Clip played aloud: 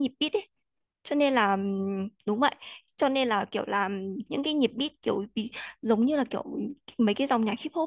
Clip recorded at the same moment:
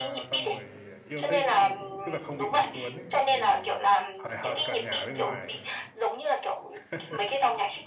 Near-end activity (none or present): present